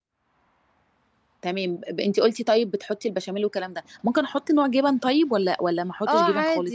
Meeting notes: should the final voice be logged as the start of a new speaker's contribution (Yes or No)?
Yes